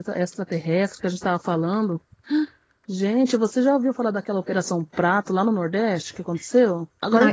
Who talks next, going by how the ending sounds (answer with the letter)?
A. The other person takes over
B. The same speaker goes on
B